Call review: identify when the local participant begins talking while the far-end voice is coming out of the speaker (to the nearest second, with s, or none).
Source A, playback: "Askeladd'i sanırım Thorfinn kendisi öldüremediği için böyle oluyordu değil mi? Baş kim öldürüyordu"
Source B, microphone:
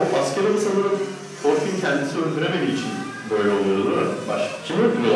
none